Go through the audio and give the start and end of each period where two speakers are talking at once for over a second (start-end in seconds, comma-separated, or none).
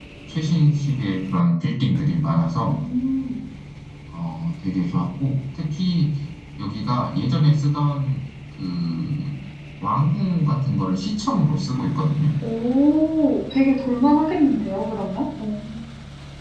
none